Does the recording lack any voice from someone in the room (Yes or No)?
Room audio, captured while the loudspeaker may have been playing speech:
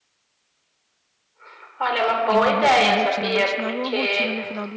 No